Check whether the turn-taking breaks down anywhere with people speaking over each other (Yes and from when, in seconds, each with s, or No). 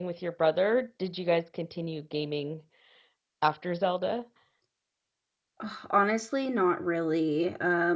No